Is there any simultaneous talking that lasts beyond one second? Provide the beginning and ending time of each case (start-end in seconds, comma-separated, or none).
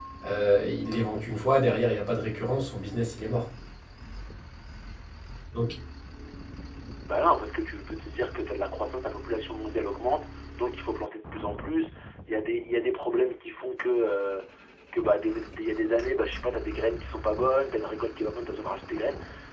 none